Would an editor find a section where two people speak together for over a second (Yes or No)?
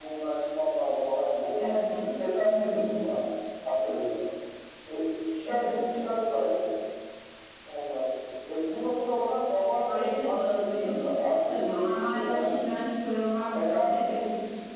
Yes